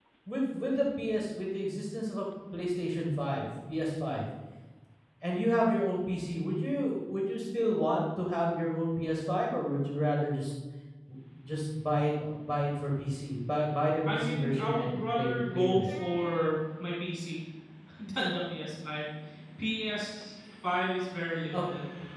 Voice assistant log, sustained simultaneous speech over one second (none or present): present